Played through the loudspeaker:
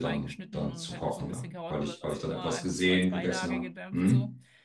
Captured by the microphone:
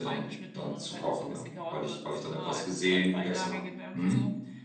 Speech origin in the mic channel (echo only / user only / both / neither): echo only